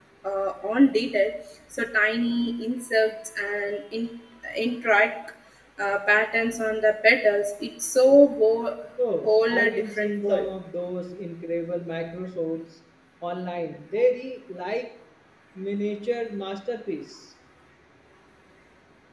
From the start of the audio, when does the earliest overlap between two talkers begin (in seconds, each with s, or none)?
9.2 s